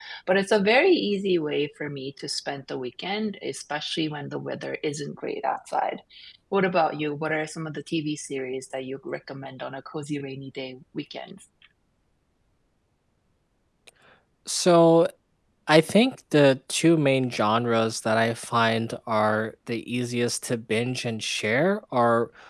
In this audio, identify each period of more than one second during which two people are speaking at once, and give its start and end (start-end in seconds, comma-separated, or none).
none